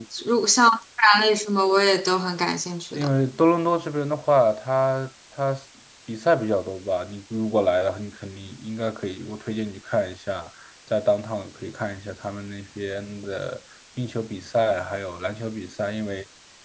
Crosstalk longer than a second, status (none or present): none